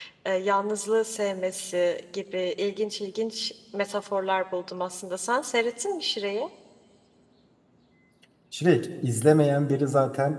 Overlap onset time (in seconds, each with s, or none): none